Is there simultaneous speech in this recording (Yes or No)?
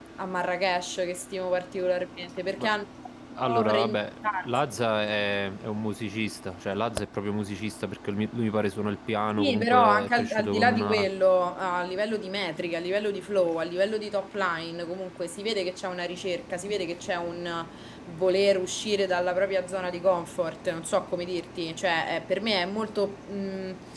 Yes